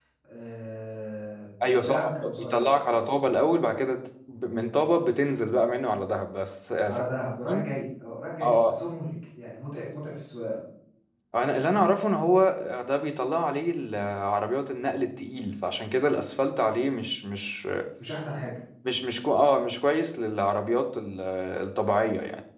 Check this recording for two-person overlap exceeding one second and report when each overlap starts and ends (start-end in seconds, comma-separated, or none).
1.7-3.1